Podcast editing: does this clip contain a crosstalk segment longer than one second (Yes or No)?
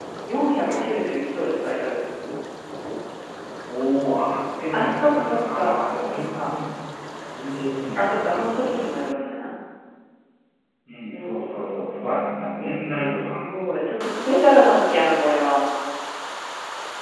Yes